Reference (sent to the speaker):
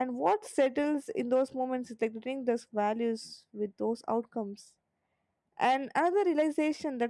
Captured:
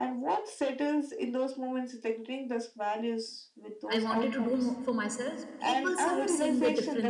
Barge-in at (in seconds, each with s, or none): 3.9 s